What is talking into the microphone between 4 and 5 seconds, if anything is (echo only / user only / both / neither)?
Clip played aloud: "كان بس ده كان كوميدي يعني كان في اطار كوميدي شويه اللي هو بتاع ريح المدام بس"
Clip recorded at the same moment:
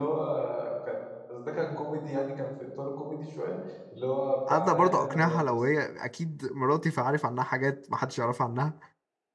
both